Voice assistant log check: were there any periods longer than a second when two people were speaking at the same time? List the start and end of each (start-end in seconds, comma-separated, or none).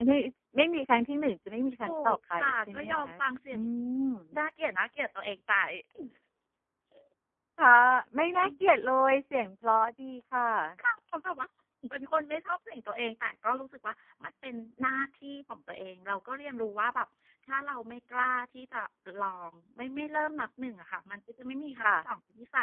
1.8-3.1